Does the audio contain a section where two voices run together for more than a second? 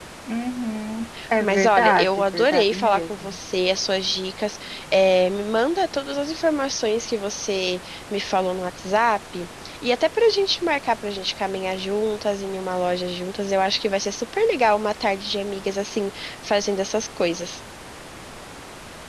Yes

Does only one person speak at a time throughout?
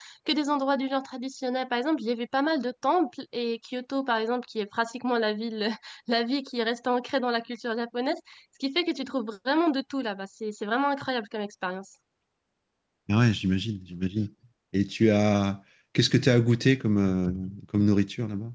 Yes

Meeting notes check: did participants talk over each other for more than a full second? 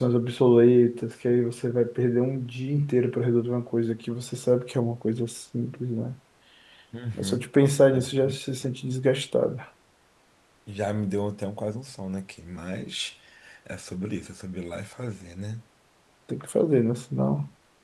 No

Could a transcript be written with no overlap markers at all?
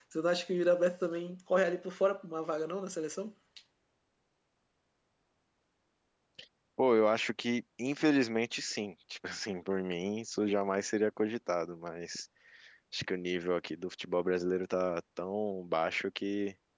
Yes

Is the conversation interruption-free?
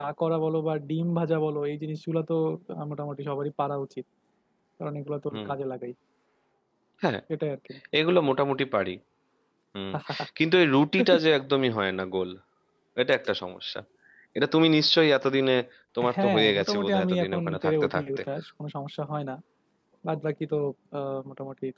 No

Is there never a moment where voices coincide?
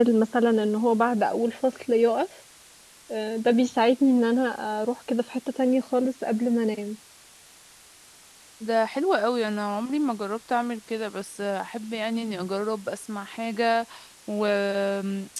Yes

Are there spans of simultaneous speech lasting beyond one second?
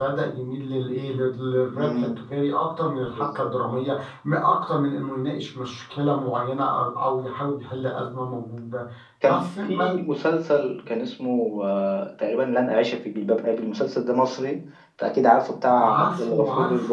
Yes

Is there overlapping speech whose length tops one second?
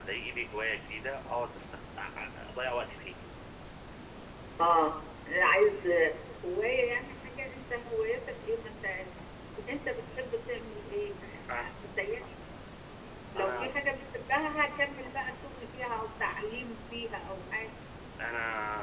No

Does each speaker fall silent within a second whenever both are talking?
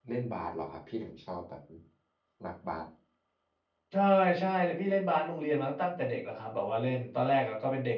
Yes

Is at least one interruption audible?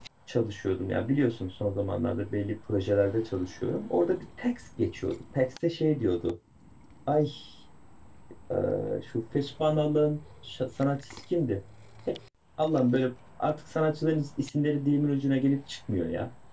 No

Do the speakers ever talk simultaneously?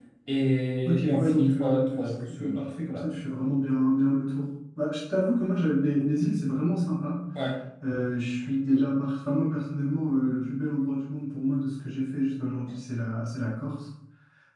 Yes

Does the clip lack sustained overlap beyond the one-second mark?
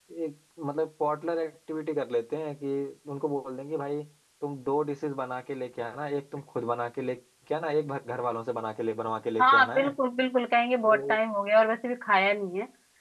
Yes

